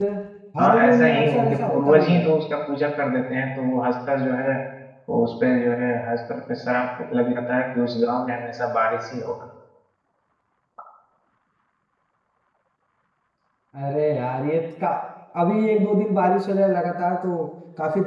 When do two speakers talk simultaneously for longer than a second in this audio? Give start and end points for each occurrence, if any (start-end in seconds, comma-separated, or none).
0.6-2.2